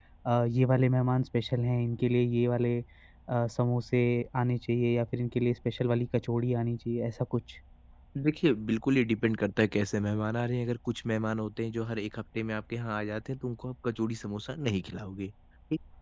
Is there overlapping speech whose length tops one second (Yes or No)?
No